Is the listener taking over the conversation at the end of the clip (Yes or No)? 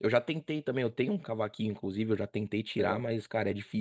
No